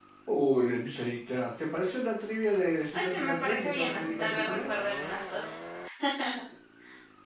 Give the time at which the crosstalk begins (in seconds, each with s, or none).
2.9 s